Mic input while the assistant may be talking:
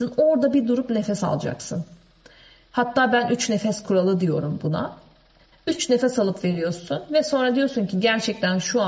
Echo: none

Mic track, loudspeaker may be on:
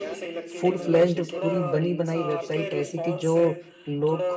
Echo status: present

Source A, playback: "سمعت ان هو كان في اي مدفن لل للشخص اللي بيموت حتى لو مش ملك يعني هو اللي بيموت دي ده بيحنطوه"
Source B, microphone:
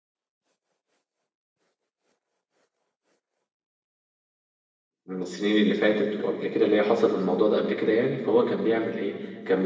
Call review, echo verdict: none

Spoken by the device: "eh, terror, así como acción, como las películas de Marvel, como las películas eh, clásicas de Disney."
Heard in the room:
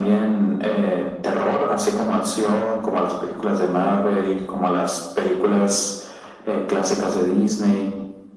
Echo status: present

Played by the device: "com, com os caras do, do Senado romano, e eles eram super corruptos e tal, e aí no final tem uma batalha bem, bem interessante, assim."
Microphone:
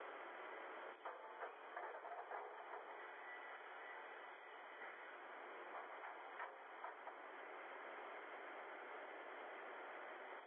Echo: none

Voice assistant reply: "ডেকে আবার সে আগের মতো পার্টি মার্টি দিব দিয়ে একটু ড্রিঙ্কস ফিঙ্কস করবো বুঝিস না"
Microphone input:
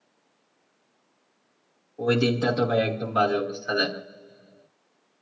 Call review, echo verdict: none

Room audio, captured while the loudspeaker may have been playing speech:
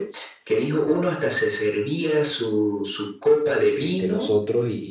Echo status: present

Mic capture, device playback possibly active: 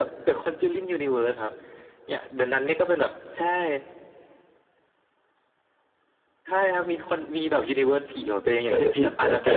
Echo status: present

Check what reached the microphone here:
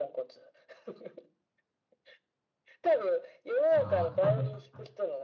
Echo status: present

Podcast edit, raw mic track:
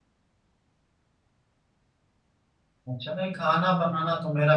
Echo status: none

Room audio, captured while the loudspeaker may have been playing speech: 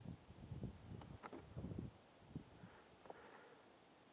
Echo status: none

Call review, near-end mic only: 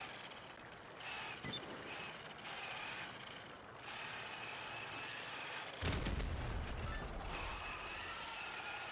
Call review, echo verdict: none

